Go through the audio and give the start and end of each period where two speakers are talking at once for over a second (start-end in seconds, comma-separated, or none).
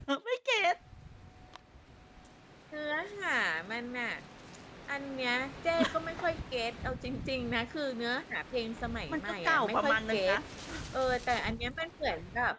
9.1-10.4